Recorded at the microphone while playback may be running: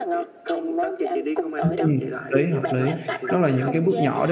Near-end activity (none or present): present